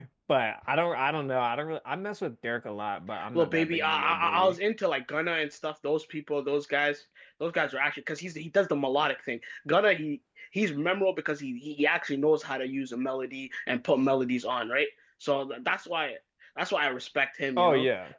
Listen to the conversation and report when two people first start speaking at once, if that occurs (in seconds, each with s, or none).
3.3 s